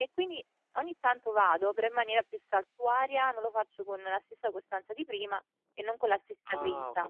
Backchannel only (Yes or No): No